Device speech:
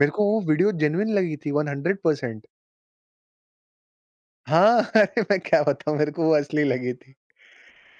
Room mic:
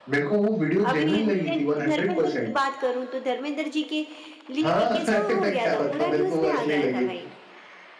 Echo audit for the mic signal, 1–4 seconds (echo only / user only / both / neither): both